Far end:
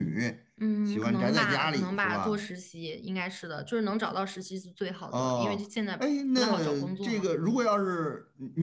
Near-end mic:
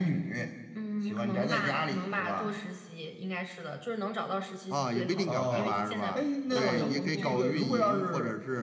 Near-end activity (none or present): present